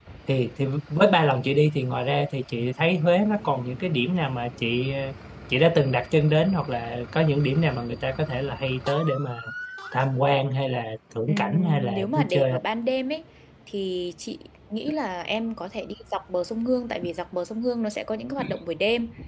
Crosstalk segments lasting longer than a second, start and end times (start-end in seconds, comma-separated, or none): 11.3-12.6